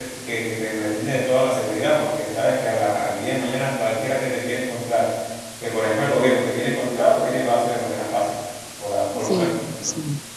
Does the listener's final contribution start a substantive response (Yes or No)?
Yes